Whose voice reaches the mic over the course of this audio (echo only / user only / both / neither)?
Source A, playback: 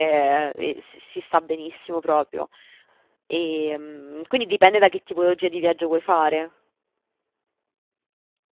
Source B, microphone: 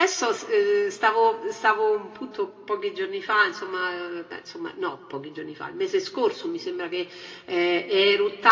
user only